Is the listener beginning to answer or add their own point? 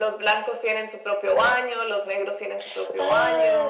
Yes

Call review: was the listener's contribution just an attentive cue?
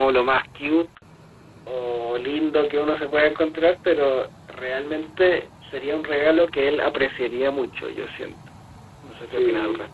No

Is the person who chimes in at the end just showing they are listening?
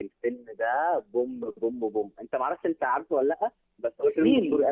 No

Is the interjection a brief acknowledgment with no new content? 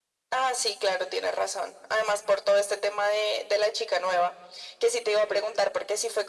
Yes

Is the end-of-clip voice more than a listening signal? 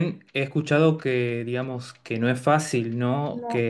No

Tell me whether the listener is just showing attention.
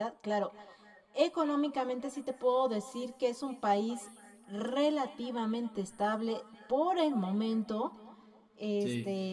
Yes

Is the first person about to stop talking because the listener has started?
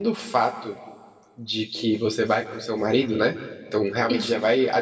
No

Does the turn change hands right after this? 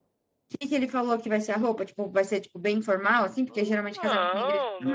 Yes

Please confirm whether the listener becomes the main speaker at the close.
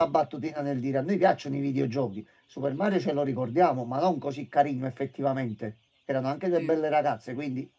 No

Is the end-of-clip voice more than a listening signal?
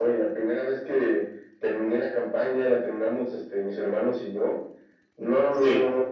No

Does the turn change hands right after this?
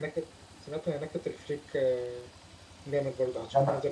Yes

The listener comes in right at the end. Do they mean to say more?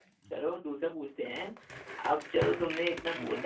No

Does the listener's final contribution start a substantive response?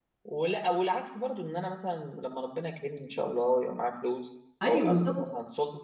No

